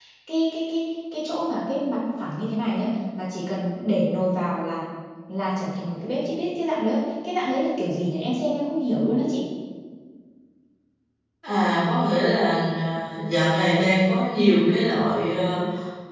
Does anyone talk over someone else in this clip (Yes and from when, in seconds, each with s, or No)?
No